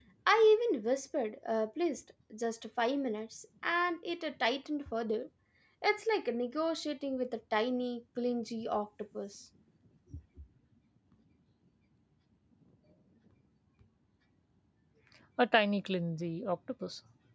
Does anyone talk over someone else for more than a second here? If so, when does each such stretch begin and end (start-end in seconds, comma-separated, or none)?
none